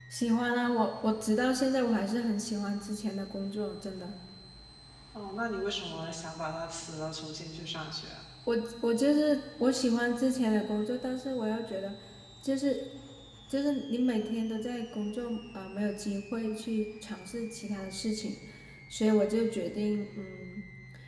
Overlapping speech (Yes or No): No